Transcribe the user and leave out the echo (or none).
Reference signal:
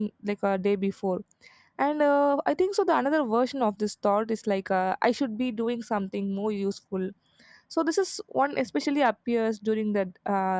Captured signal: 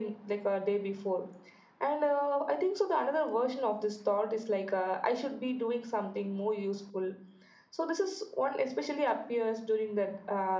none